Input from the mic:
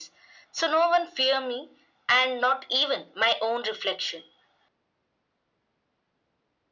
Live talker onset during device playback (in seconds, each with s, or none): none